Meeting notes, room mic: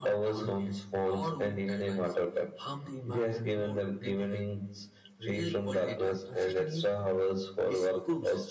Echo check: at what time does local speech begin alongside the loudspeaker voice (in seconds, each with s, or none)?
none